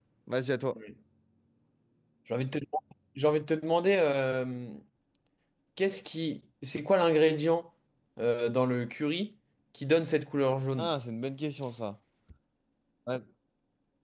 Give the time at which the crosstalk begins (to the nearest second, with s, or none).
none